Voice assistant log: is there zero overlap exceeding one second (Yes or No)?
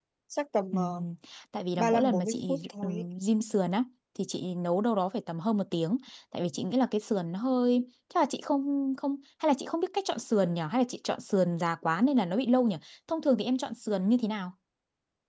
No